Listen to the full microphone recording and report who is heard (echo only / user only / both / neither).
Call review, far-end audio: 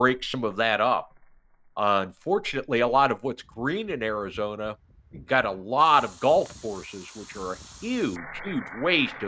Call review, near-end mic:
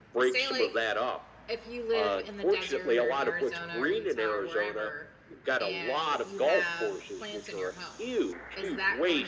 both